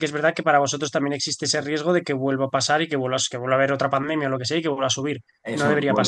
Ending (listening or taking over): taking over